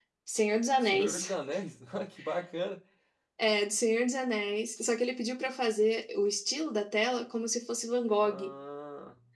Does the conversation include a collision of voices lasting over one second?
No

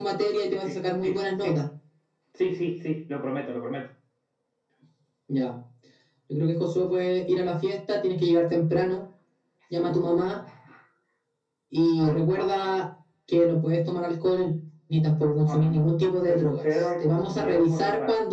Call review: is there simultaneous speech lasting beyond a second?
Yes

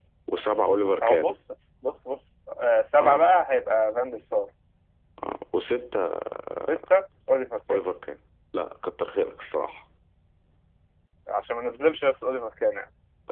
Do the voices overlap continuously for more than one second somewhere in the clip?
No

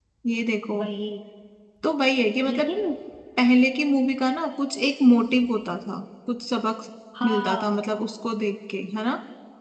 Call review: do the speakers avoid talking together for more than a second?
Yes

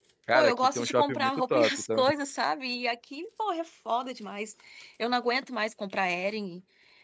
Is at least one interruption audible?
Yes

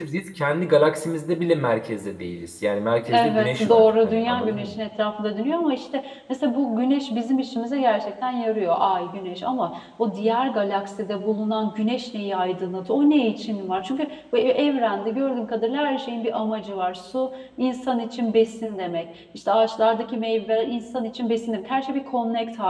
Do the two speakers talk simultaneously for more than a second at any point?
Yes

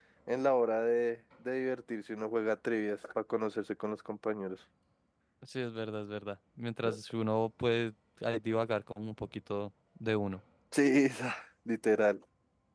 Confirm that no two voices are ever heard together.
Yes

